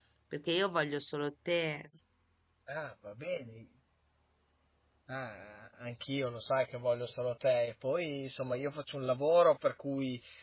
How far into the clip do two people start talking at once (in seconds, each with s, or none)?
none